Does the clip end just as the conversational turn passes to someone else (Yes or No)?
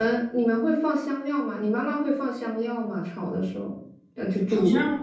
Yes